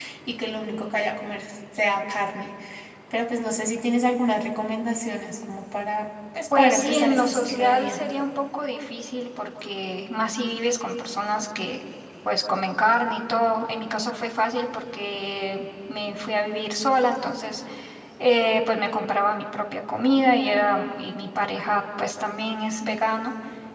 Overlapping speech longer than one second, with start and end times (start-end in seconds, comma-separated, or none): 6.5-8.0